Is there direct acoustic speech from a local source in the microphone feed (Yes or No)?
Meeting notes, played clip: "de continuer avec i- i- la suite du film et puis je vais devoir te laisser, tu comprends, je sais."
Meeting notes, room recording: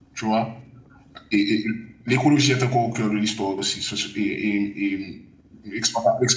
Yes